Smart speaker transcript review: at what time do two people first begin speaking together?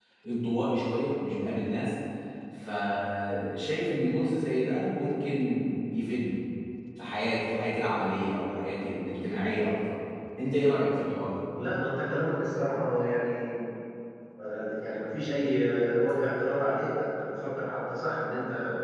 none

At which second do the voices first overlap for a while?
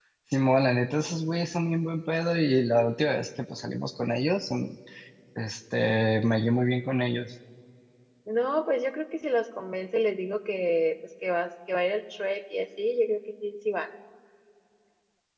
none

